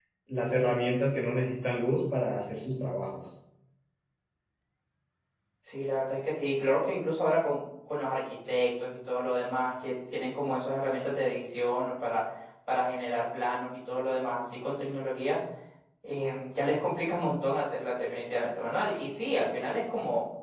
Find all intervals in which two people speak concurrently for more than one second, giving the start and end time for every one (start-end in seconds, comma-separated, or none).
none